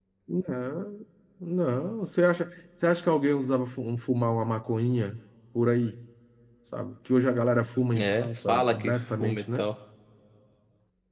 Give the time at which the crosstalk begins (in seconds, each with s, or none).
7.9 s